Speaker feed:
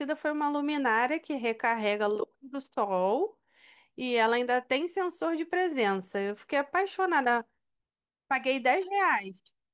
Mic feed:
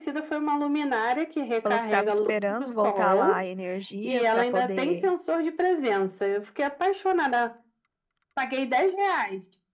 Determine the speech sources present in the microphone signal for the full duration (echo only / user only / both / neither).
both